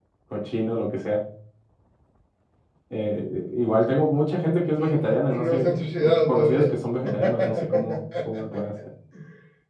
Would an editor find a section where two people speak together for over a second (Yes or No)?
Yes